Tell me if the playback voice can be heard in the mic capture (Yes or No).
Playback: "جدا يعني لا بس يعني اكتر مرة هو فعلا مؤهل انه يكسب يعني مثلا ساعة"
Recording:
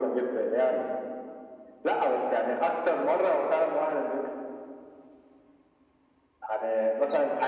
Yes